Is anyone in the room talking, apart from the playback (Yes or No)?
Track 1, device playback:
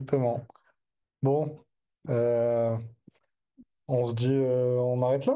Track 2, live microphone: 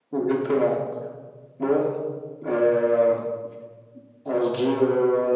No